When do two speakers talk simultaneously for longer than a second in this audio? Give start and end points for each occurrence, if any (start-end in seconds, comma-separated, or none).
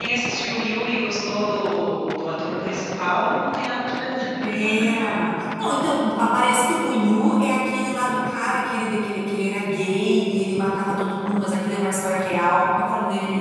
none